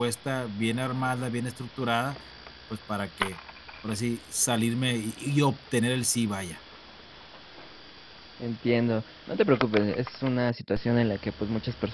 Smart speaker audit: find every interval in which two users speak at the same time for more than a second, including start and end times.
none

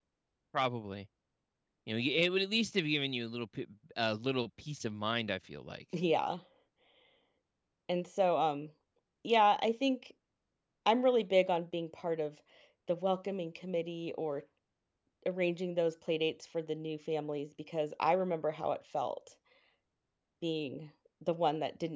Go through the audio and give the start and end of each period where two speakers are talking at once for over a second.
none

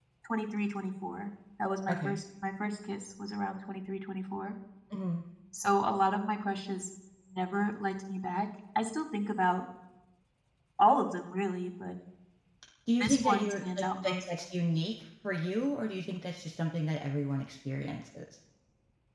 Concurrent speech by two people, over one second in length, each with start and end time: 13.0-14.2

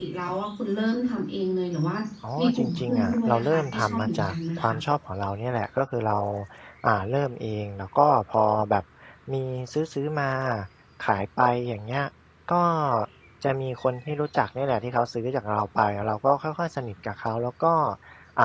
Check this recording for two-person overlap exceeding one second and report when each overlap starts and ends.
2.4-4.8

